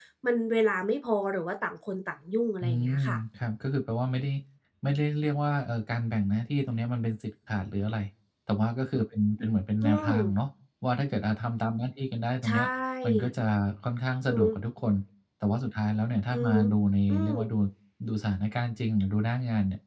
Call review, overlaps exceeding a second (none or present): none